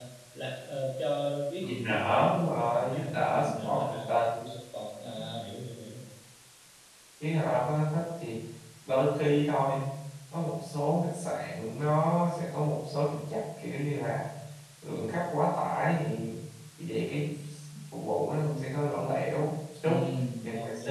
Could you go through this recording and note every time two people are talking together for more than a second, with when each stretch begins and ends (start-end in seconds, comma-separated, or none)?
1.6-3.9